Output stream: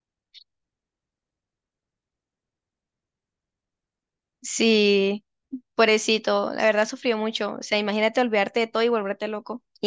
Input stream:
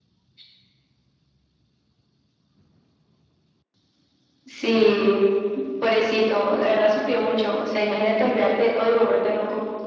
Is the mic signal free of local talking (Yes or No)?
Yes